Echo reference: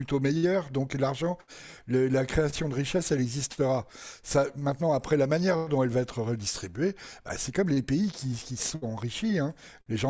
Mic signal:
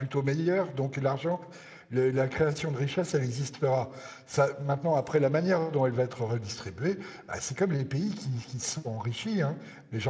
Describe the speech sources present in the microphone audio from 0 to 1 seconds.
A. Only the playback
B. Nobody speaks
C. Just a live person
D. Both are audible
A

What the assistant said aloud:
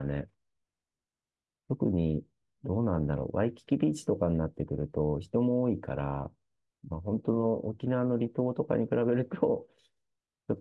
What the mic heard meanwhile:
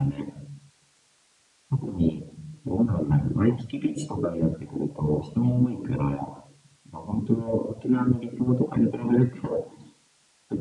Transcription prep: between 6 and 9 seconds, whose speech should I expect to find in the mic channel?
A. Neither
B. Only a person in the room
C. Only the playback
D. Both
C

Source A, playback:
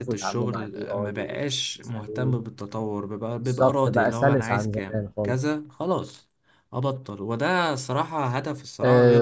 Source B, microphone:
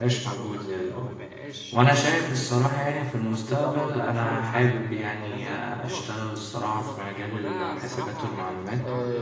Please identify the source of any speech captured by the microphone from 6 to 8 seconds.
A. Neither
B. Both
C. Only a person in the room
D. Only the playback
B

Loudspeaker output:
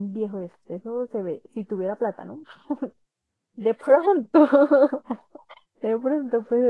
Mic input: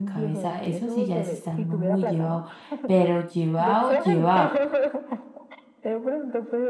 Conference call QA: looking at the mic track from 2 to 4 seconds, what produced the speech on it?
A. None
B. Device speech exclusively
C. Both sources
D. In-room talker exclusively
C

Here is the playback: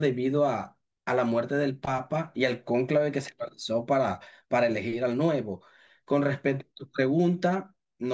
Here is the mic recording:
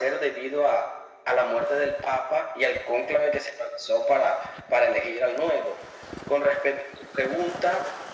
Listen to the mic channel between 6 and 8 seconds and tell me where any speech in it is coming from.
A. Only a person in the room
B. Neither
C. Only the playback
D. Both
C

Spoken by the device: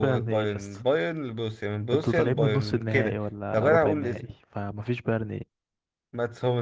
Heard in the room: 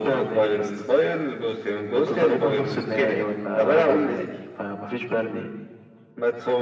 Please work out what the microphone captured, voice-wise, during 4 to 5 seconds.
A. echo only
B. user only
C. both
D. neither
A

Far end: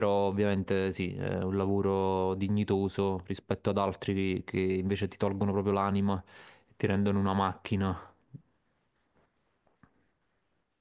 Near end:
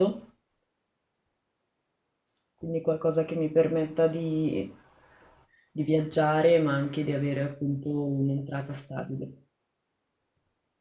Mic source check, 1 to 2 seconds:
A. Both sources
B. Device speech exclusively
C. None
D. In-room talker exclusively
C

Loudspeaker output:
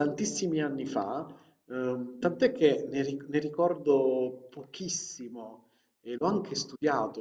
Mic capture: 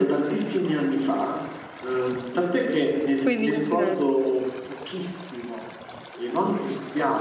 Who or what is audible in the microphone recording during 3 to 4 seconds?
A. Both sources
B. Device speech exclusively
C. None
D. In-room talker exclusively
A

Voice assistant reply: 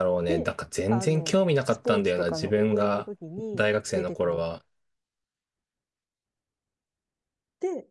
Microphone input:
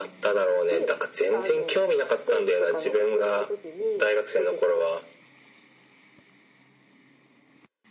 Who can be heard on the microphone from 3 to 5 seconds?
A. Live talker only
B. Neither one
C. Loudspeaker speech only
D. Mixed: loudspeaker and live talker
C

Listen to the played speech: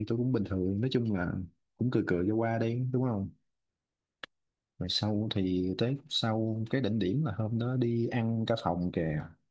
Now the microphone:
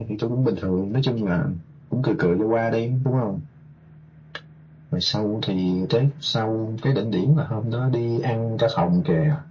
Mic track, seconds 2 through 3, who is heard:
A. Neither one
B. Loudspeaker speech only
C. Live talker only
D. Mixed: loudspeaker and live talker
B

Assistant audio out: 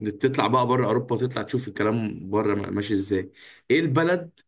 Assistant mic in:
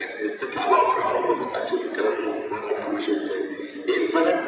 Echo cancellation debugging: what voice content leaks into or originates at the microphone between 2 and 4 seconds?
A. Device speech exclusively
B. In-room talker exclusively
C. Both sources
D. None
A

